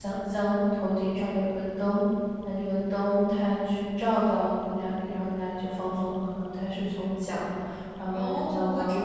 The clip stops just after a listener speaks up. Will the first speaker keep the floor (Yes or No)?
No